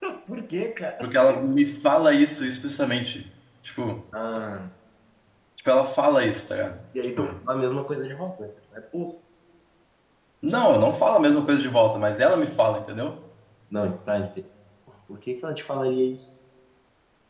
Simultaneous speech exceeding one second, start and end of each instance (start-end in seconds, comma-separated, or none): none